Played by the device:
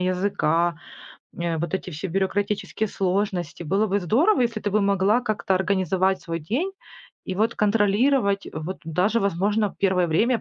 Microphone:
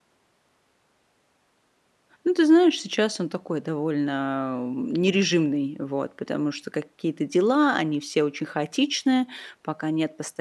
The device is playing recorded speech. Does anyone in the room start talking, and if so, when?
2.2 s

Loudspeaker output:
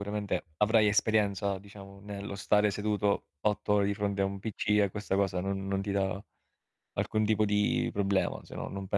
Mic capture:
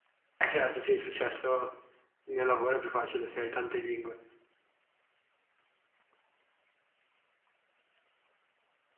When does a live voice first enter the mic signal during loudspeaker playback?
0.4 s

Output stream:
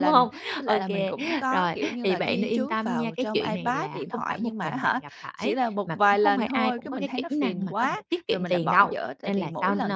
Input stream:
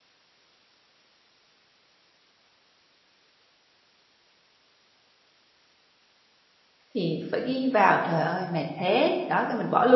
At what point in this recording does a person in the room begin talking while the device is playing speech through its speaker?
6.9 s

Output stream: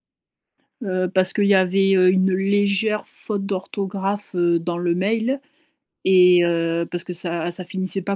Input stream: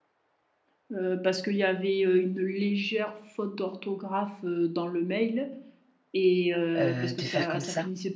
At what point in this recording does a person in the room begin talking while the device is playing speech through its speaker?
6.8 s

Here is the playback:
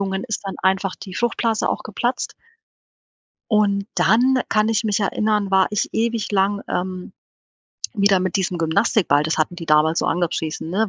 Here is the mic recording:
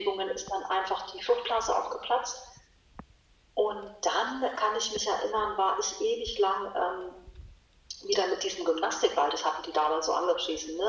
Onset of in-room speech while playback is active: none

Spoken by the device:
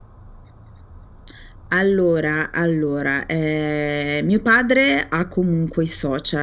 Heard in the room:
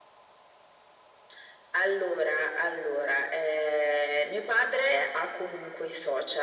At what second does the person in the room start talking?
none

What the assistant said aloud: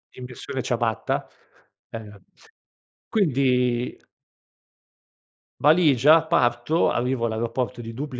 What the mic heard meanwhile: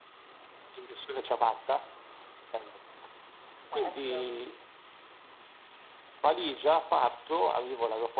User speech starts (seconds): 3.6 s

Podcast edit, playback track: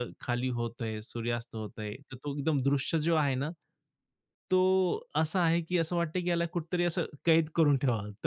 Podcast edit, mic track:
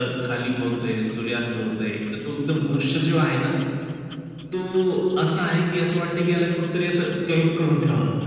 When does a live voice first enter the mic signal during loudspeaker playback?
none

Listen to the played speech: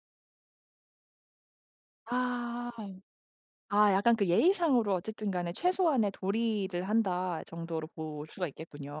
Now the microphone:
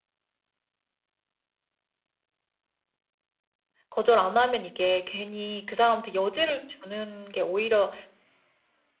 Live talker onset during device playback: 3.9 s

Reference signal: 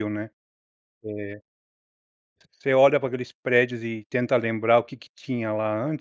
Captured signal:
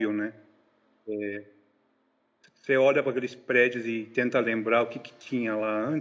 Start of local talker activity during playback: none

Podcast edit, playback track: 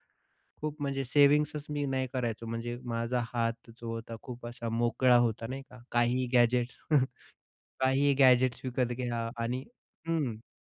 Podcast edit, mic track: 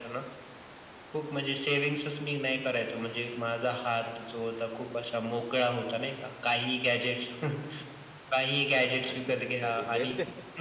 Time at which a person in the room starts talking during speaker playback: 8.7 s

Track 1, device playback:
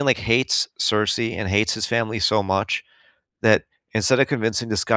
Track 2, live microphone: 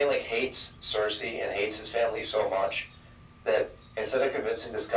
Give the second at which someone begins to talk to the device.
none

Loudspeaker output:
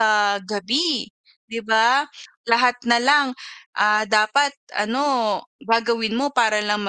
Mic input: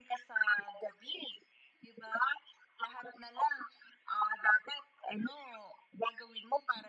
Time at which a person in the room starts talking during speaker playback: none

